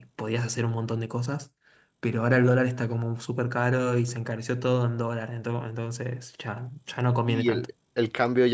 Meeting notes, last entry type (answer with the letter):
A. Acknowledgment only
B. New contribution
B